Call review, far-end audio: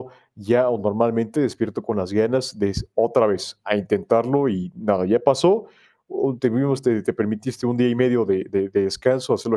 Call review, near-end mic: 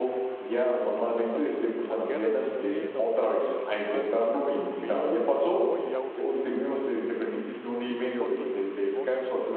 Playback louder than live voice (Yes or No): Yes